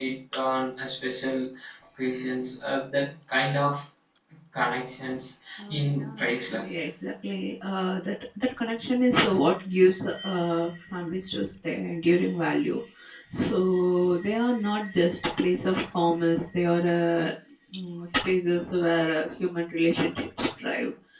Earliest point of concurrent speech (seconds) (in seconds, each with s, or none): 5.6 s